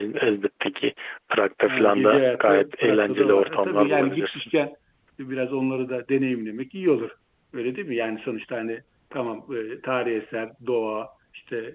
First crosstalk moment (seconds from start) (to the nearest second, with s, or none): 2 s